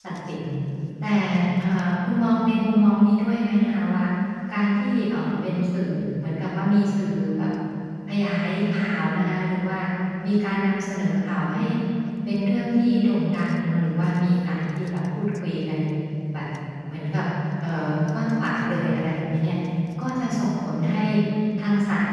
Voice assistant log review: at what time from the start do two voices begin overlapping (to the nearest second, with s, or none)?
none